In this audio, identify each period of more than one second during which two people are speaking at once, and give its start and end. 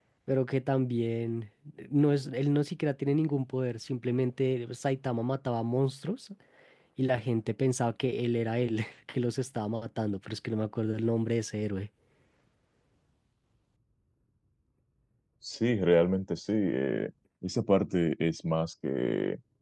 none

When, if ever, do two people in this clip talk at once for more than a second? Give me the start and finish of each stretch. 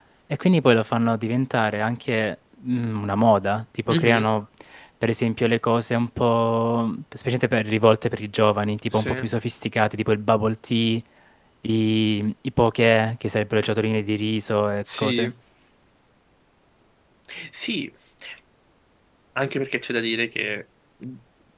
none

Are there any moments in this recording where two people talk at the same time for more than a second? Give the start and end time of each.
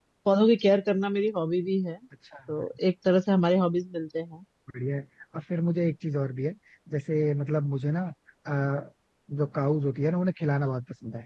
none

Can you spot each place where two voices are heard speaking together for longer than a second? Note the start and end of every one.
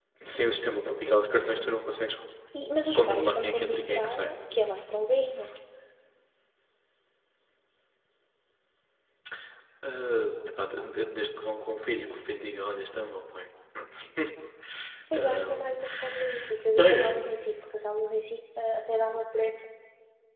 3.0-4.3

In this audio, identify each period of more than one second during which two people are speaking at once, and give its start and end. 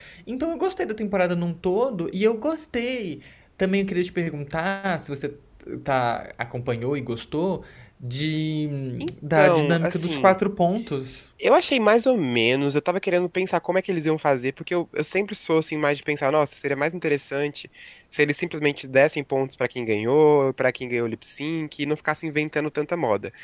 9.0-10.3

